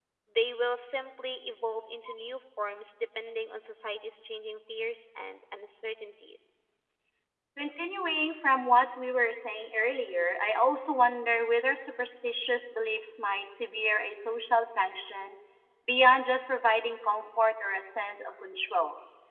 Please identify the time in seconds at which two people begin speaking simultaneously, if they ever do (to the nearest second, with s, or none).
none